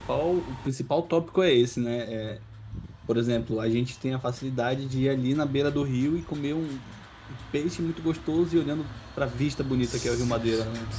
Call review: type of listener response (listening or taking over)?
taking over